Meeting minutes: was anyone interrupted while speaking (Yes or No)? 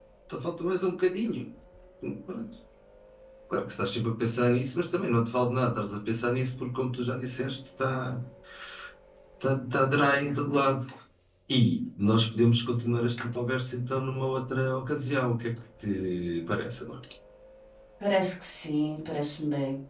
No